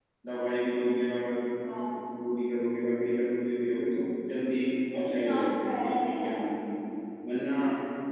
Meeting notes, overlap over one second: present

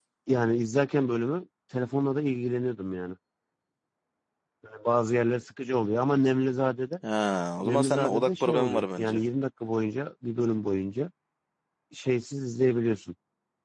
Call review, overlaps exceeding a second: present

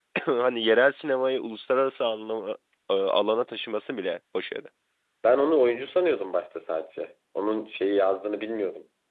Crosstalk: none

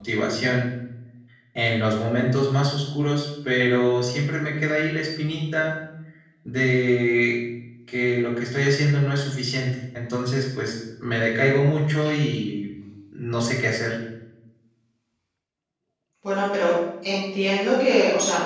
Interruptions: none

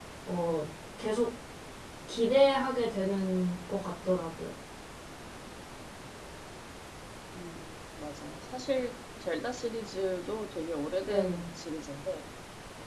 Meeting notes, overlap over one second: none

